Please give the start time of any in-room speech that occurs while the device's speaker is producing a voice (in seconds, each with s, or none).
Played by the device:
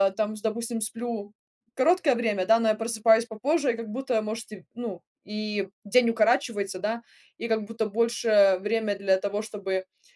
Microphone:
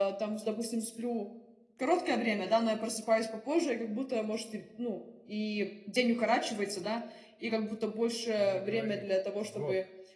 8.4 s